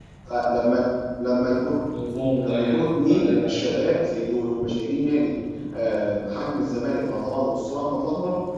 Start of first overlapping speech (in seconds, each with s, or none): 2.1 s